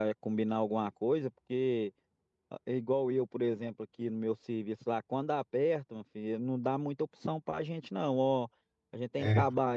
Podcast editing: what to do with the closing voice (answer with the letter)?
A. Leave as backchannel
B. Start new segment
A